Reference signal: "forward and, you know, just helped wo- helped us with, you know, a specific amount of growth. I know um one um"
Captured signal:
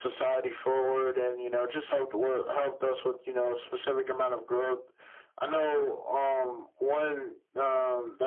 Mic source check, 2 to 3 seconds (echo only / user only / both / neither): echo only